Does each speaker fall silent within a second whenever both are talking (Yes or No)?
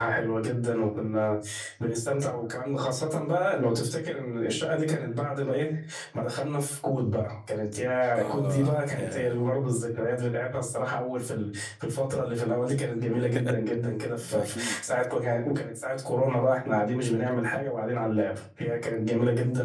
No